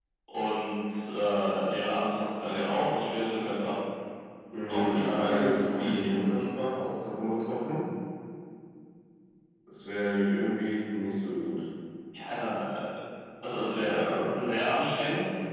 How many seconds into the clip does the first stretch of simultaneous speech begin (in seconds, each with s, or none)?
4.7 s